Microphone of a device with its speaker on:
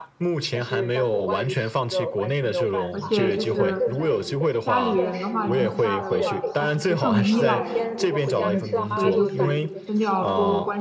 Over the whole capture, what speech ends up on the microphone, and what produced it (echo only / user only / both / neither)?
both